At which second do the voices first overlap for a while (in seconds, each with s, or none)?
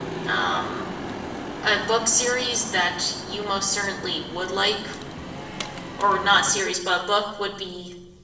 none